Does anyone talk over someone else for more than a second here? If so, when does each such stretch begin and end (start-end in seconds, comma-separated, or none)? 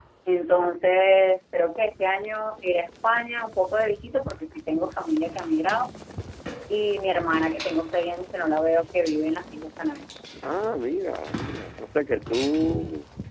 none